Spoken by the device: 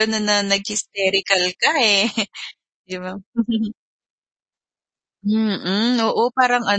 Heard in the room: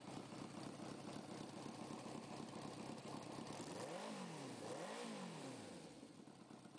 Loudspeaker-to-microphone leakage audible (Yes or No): No